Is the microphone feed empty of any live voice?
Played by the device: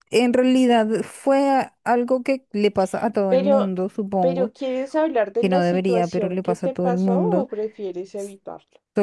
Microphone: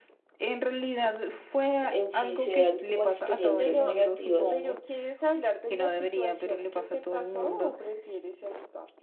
No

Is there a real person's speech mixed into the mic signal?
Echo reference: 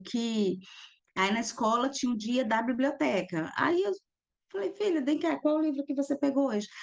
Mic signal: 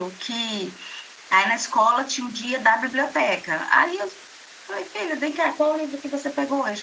No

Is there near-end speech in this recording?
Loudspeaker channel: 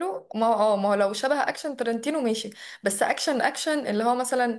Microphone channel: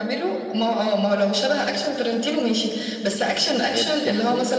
Yes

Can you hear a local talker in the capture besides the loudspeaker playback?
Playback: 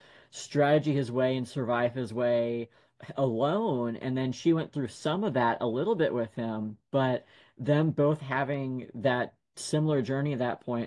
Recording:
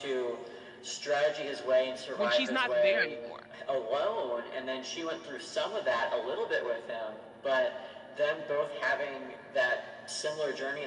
Yes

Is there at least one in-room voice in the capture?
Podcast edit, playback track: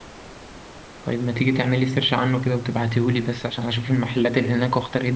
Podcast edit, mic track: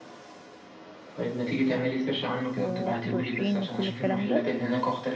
Yes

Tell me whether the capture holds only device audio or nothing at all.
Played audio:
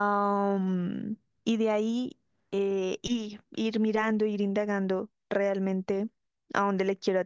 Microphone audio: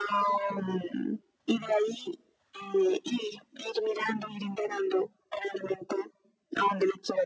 Yes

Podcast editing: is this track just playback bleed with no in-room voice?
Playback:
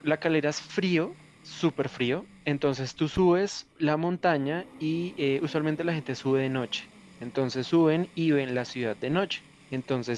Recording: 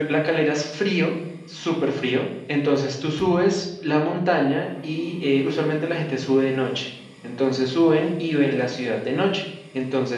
Yes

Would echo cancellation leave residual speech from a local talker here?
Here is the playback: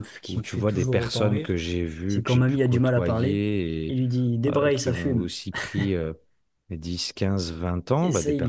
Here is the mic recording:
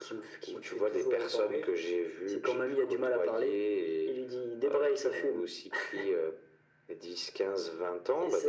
No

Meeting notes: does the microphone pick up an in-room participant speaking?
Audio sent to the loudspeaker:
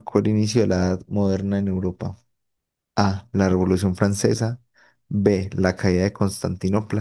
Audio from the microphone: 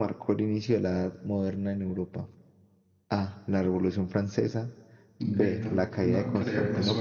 Yes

